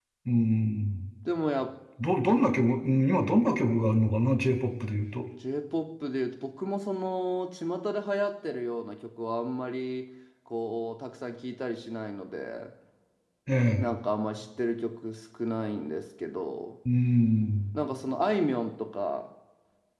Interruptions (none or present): none